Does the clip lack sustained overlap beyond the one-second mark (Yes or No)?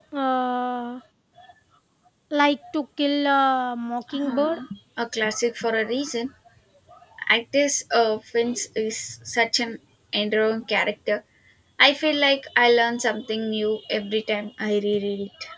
Yes